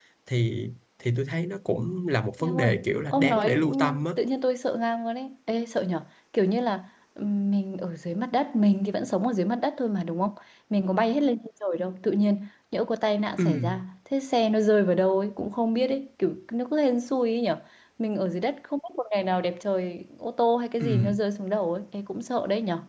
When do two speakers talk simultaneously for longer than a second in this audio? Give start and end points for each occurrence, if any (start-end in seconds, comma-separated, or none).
2.4-4.0